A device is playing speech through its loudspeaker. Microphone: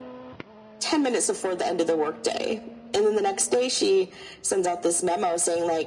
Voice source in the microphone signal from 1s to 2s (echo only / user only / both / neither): echo only